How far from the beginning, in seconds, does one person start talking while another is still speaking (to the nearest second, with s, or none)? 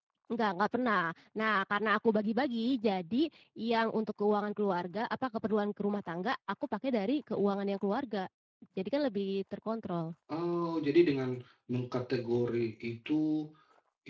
none